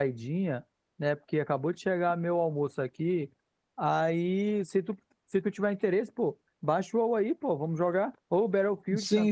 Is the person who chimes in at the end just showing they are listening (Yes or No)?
No